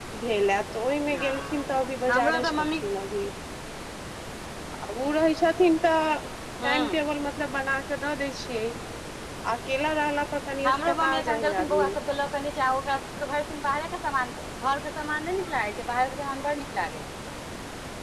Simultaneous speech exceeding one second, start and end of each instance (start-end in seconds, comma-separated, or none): 1.1-2.8, 10.7-11.9